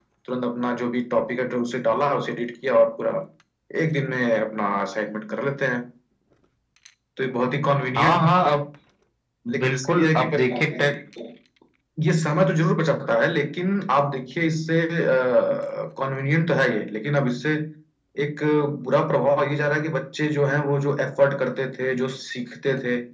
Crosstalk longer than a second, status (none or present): present